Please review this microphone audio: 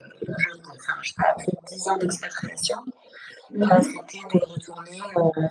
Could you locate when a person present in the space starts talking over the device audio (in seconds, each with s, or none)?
3.5 s